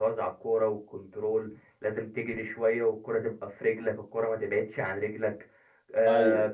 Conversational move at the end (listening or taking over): listening